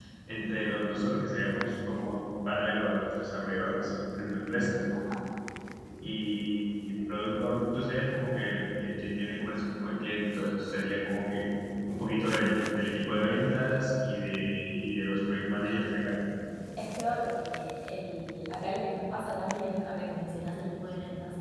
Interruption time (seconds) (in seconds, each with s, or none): none